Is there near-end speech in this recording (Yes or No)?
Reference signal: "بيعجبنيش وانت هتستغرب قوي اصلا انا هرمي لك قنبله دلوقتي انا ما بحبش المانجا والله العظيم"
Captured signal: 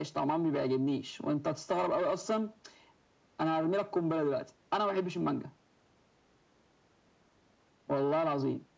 No